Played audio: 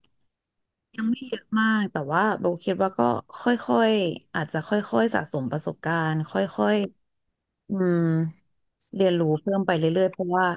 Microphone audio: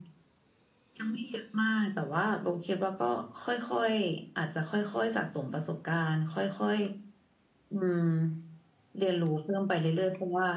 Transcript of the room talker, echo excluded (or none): none